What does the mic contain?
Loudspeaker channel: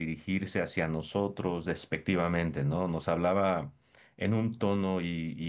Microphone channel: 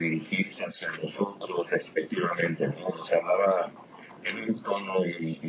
echo only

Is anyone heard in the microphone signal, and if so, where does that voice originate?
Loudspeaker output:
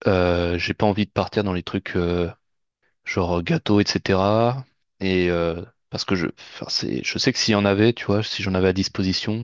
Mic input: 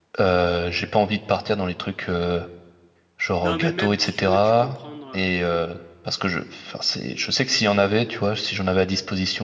both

